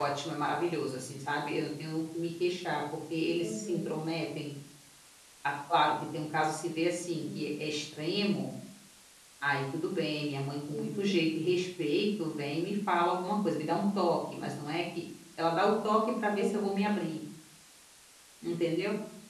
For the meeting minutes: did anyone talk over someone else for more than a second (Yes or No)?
No